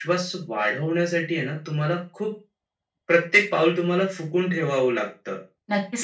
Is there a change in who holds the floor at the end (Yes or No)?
Yes